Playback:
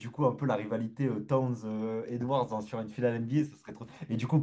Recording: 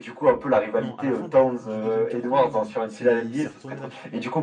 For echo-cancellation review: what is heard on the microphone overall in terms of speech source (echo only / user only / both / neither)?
both